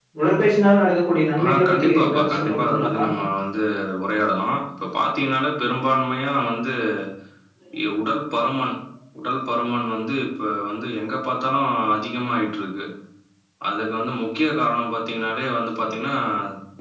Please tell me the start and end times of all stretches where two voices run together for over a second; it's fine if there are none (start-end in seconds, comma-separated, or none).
1.4-3.0